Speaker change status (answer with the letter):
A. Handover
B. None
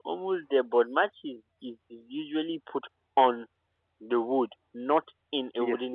A